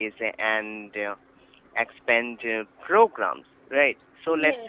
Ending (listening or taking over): listening